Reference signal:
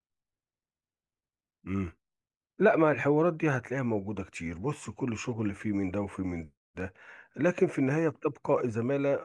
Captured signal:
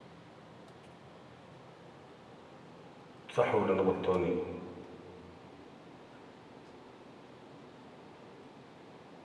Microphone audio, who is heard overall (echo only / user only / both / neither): user only